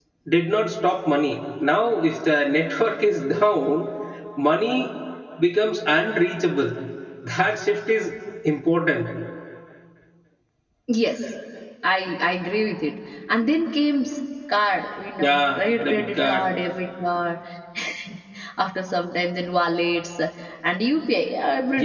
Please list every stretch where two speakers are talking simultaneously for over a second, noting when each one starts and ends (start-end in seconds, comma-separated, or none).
15.2-16.5